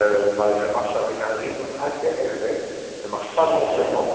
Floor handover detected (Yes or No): No